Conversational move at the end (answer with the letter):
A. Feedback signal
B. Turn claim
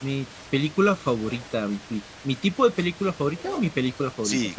B